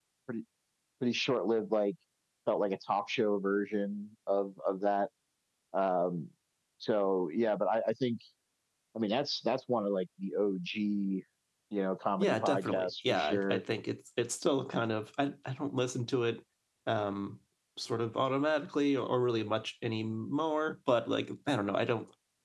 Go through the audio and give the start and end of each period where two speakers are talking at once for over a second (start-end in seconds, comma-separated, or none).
12.2-13.6